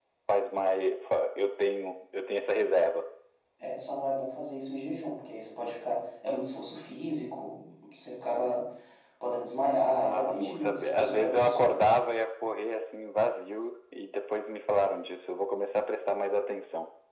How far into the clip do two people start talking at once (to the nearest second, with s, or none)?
10 s